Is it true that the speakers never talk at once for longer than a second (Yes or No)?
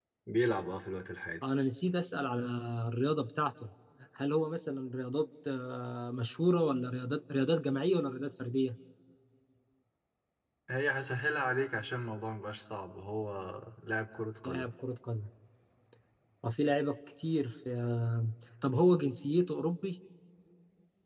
Yes